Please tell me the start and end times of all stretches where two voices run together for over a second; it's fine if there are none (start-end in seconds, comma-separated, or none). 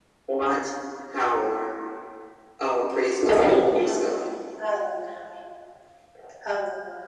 none